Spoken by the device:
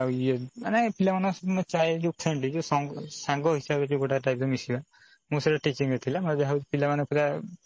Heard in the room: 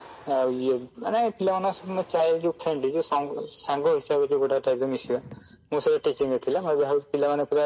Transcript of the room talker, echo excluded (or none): none